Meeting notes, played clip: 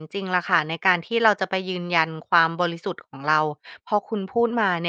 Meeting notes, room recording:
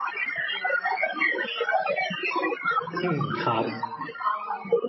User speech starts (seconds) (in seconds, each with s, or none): 3.0 s